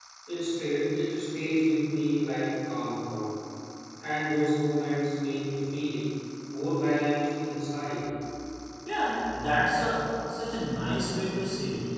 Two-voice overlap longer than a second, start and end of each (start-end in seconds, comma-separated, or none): none